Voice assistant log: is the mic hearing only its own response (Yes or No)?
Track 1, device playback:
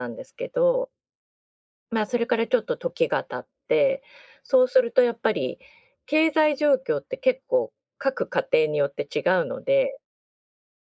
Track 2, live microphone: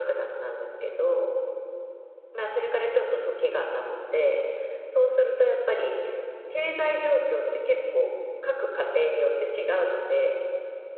No